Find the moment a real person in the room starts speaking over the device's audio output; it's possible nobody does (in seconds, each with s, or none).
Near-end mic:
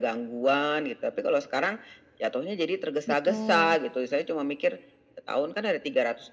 3.1 s